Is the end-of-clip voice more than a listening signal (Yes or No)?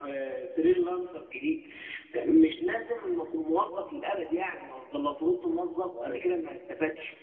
No